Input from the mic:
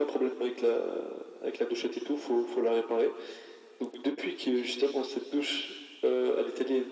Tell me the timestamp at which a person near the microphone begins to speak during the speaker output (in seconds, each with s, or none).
none